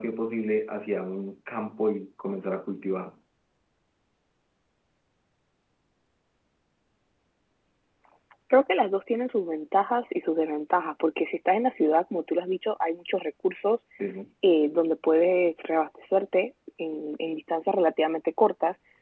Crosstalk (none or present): none